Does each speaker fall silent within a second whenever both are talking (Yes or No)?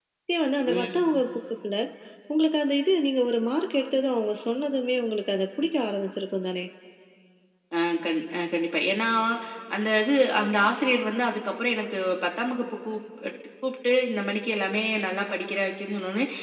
Yes